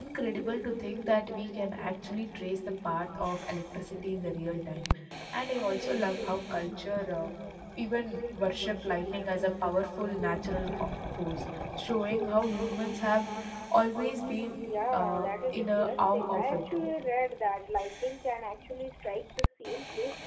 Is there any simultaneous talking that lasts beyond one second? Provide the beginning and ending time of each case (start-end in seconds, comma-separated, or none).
14.9-16.6